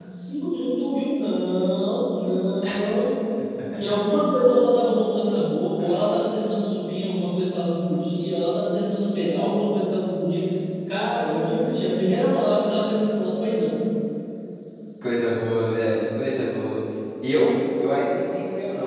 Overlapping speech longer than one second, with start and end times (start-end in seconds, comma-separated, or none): none